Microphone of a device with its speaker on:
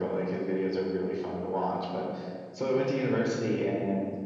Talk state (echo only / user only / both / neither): echo only